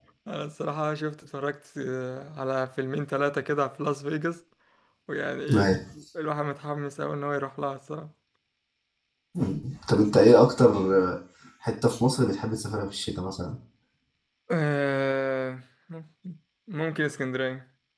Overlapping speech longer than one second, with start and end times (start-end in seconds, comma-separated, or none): none